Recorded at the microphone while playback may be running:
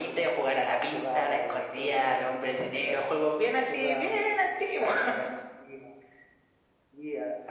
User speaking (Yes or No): No